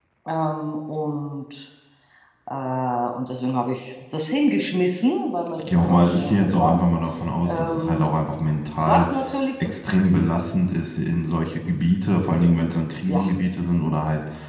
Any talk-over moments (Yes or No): Yes